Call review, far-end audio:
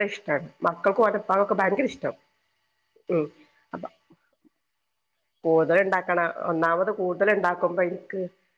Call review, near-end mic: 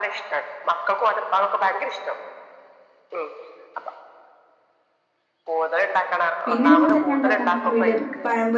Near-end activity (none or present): present